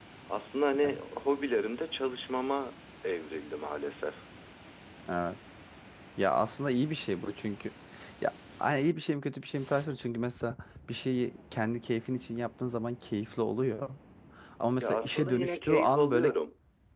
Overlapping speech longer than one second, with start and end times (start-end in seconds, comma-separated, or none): 14.8-16.3